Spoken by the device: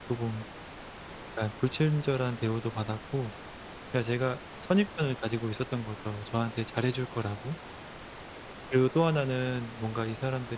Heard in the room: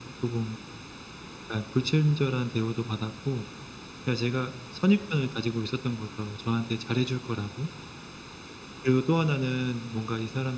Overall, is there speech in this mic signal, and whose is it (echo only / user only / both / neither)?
echo only